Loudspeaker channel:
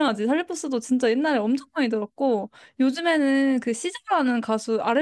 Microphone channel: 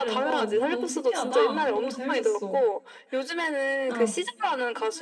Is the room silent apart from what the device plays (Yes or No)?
No